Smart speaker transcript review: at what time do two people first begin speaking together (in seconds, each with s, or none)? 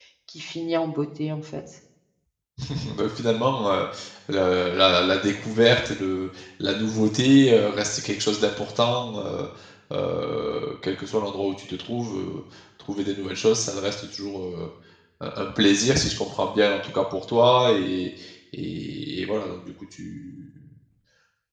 none